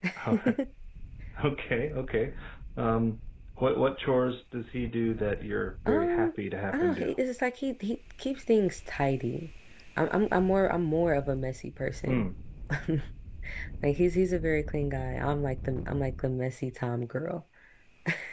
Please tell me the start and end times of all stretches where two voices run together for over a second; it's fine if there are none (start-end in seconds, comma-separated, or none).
none